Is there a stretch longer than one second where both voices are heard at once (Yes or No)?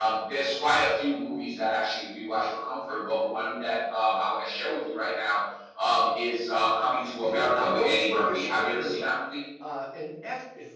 Yes